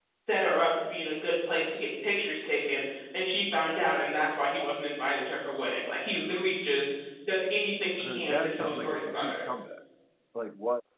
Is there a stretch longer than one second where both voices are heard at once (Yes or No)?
Yes